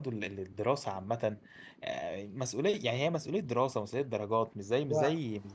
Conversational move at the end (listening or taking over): listening